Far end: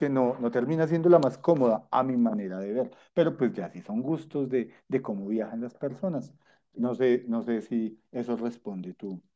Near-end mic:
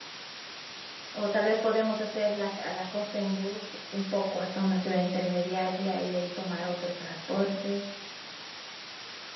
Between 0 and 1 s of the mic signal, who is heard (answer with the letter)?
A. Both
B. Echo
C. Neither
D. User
C